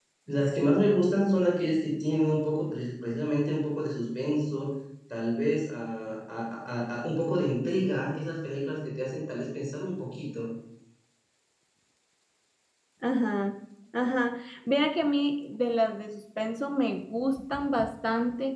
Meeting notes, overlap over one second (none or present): none